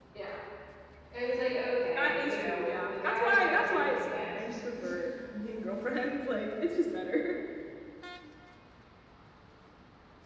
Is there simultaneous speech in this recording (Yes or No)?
Yes